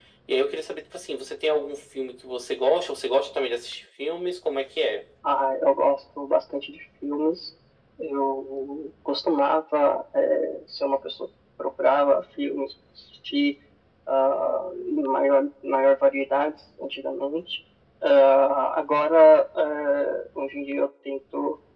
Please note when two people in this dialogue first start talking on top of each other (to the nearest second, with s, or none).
none